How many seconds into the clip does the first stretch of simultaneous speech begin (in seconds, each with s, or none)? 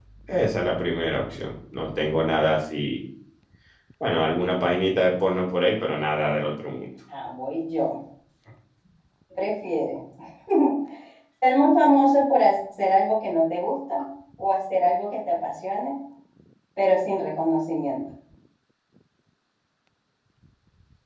none